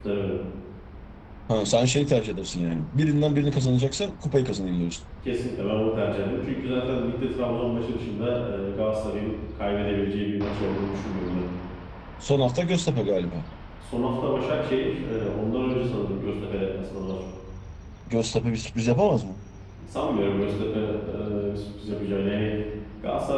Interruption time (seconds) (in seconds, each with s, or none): none